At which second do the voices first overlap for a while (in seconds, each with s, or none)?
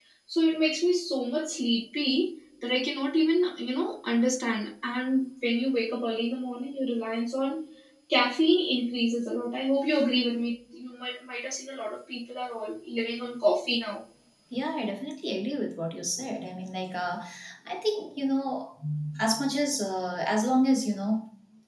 none